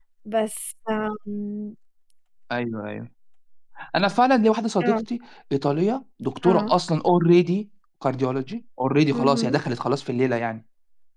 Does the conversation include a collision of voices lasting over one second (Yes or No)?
No